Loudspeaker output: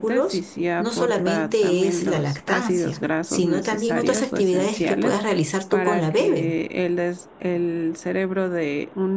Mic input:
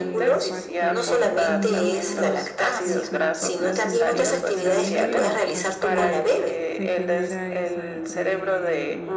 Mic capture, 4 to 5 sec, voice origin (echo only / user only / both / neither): both